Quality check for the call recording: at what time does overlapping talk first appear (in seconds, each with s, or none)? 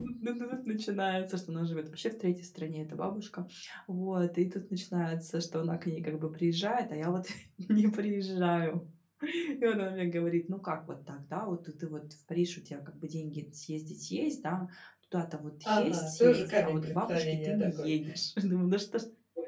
15.6 s